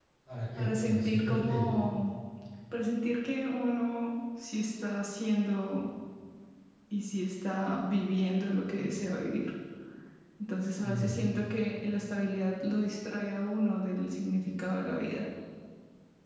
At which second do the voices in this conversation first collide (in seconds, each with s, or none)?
0.6 s